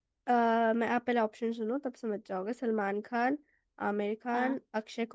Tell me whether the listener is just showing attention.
Yes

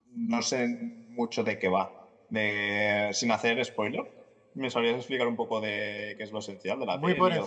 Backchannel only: No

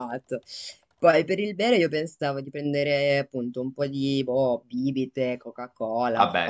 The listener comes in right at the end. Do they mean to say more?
No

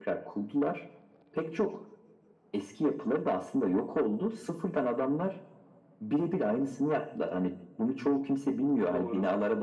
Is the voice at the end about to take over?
No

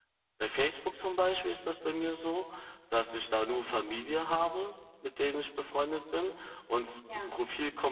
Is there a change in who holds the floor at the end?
No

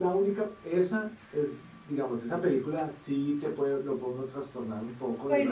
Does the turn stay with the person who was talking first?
No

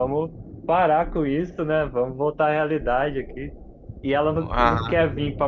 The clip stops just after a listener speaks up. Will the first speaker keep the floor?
Yes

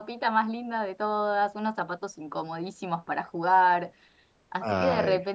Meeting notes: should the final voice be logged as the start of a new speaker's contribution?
No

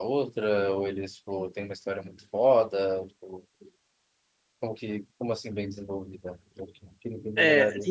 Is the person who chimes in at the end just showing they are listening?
No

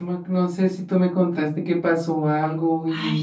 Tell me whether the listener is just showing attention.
No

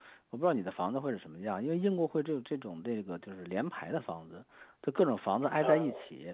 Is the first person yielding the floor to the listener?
No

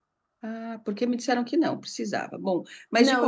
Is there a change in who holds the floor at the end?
Yes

